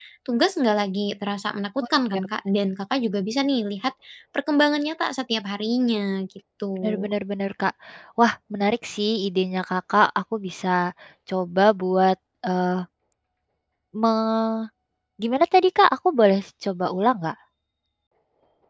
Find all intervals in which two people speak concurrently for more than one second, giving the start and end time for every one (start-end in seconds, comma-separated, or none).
none